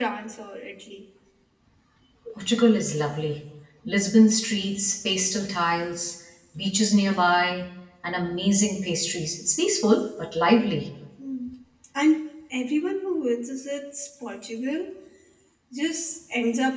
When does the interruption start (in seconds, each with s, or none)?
none